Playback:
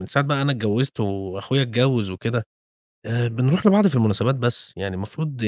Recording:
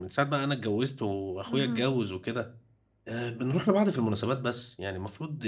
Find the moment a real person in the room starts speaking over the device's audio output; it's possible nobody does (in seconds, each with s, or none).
1.5 s